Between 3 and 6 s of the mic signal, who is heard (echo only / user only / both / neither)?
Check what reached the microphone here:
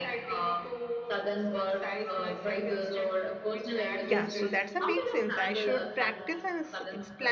both